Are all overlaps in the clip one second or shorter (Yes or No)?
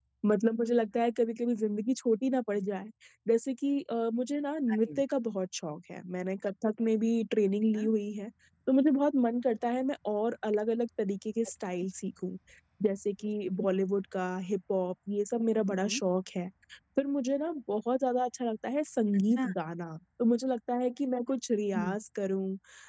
Yes